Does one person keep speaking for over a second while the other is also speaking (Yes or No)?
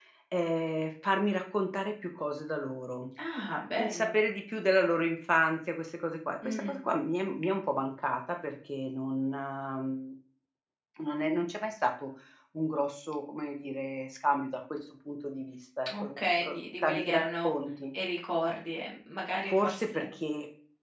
Yes